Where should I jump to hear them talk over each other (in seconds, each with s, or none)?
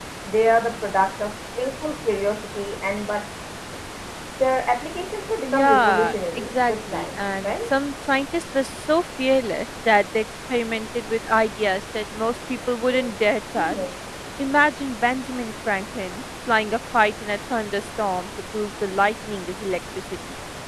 5.4 s